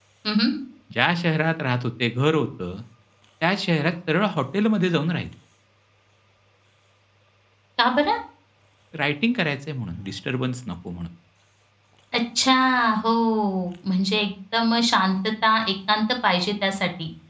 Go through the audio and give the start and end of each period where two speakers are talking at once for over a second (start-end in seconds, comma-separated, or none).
none